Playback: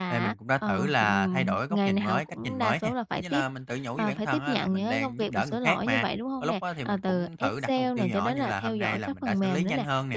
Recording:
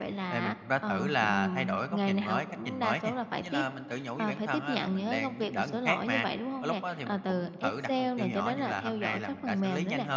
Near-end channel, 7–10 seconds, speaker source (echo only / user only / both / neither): echo only